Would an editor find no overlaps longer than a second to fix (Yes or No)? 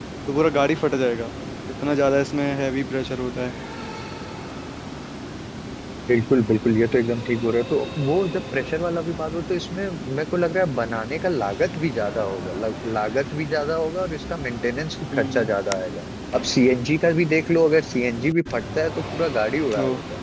Yes